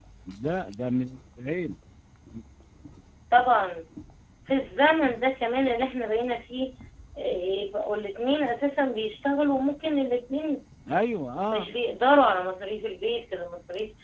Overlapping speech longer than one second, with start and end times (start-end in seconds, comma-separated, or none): none